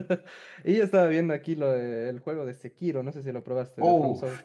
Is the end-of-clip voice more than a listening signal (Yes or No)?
Yes